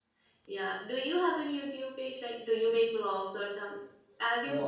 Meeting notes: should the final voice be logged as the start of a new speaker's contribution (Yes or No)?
Yes